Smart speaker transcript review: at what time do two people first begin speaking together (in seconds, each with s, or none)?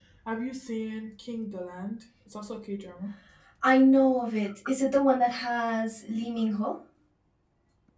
none